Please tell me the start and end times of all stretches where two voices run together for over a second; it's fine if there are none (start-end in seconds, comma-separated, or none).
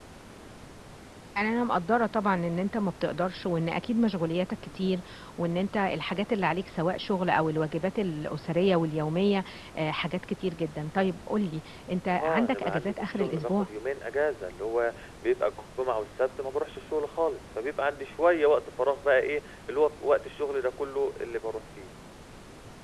12.2-13.7